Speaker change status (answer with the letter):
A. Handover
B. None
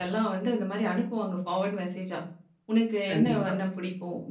B